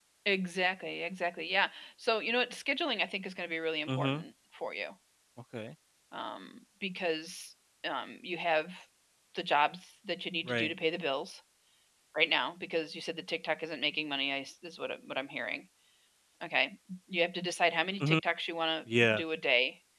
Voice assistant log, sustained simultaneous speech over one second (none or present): none